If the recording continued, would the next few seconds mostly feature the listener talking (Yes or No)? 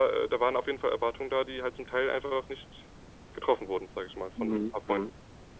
Yes